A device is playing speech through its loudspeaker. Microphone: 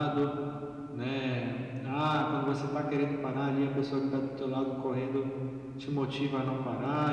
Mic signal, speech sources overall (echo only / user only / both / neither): echo only